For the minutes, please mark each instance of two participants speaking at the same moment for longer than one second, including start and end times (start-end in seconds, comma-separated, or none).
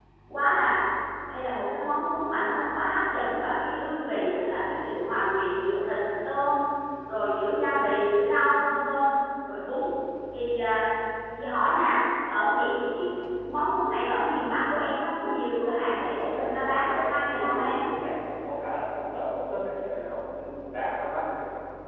16.0-17.8